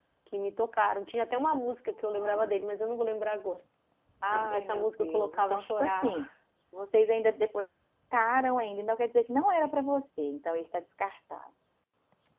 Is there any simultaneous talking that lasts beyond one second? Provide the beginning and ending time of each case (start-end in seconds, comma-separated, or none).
4.3-6.2